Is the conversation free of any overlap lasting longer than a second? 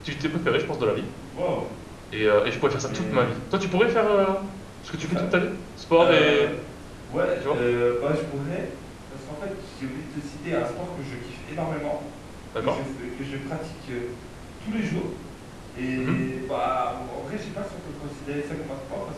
Yes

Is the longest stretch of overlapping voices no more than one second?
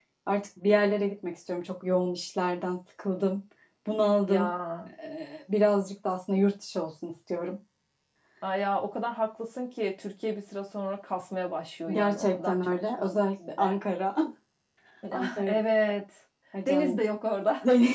No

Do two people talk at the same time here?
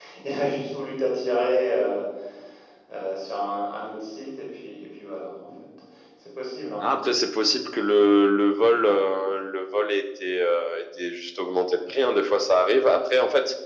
No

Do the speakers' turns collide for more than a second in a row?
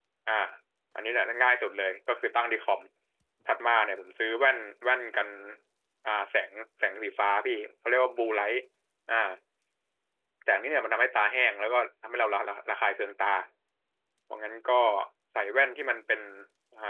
No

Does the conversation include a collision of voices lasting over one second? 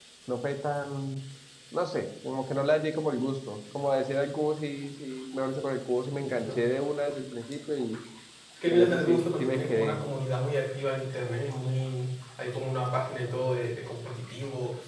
Yes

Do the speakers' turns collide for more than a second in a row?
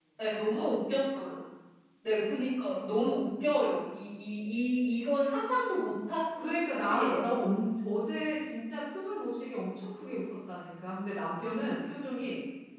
No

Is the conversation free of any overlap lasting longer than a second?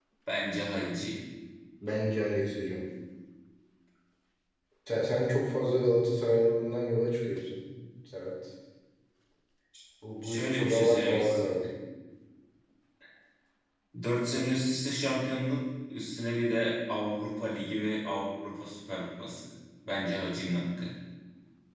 No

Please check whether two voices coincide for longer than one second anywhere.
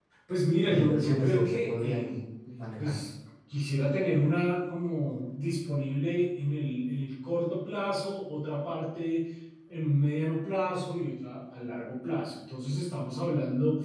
Yes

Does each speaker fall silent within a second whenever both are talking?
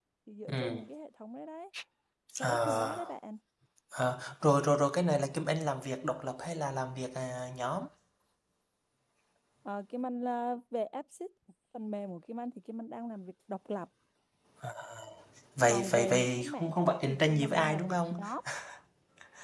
No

